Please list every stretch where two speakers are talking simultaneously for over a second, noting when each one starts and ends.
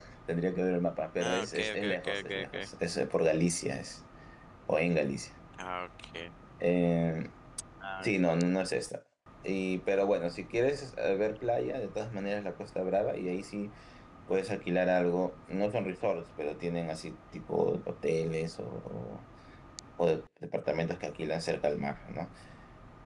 1.2-2.7

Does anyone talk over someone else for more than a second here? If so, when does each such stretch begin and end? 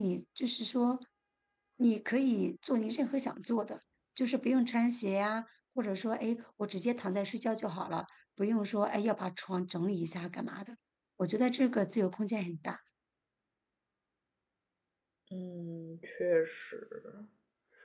none

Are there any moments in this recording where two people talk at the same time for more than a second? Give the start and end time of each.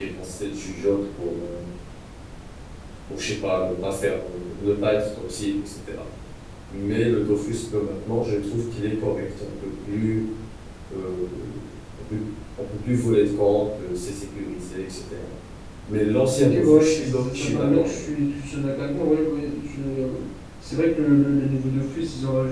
16.3-18.1

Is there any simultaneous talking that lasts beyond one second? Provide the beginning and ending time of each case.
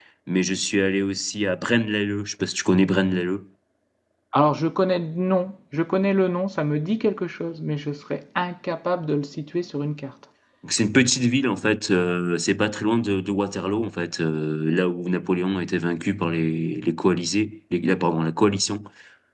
none

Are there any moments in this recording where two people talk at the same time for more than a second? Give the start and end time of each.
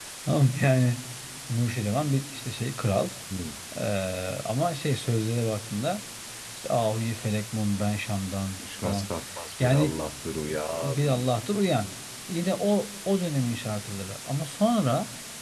none

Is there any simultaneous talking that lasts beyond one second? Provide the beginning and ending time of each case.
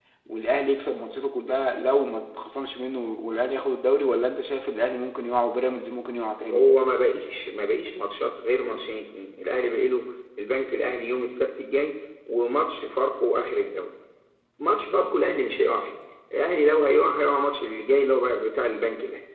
none

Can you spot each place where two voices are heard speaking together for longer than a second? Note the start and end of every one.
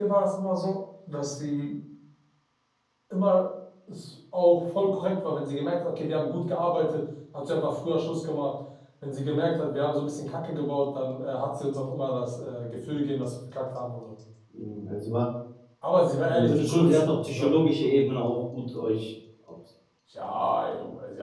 16.3-18.2

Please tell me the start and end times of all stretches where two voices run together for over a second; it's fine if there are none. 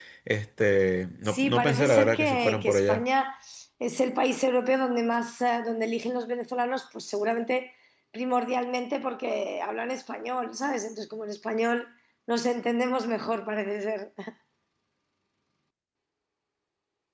1.2-3.0

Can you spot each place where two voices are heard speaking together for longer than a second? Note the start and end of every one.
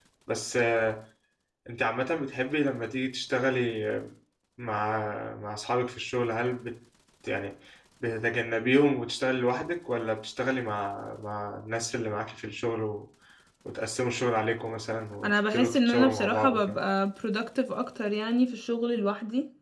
15.2-16.8

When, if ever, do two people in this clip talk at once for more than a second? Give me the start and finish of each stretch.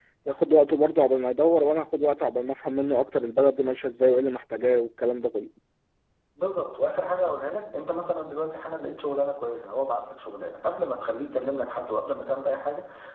none

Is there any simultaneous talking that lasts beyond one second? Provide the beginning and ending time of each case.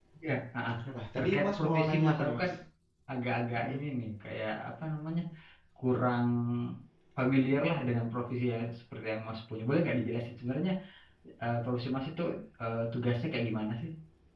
1.2-2.5

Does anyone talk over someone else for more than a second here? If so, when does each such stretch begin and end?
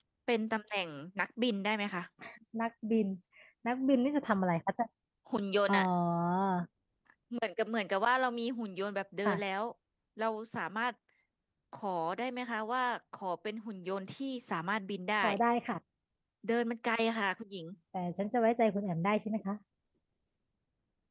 none

